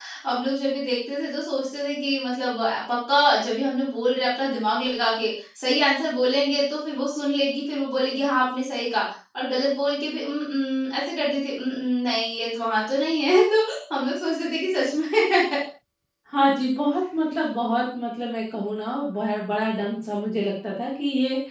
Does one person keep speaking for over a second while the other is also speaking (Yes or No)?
No